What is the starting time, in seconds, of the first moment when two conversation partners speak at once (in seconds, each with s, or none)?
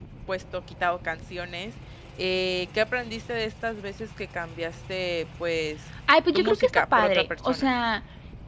6.3 s